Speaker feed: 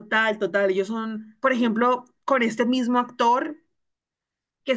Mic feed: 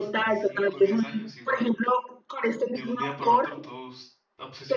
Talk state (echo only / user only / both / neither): both